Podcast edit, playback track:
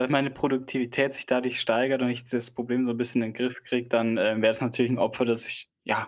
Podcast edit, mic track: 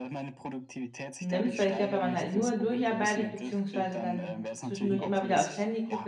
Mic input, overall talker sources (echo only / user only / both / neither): both